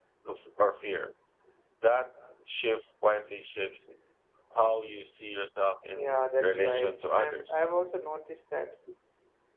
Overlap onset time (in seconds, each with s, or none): 5.9 s